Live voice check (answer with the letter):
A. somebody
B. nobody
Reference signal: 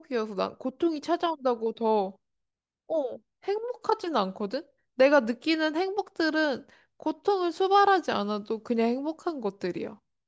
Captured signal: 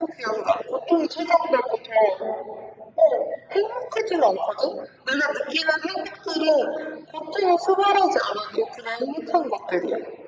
B